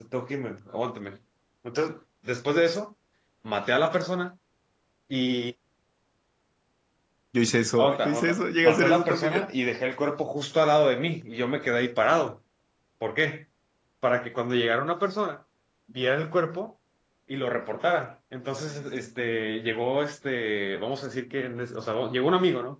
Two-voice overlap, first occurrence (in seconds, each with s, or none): 7.8 s